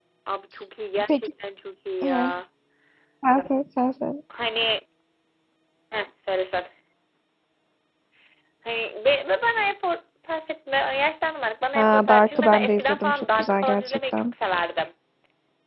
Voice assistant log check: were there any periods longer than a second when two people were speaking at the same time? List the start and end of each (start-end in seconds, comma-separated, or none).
11.8-14.2